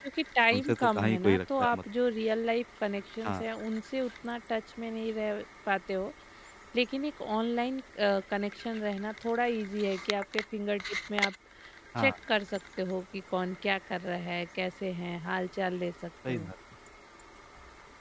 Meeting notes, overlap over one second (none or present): present